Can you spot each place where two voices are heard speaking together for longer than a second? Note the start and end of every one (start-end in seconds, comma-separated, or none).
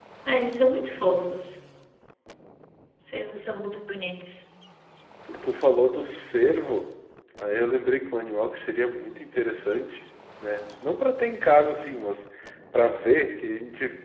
none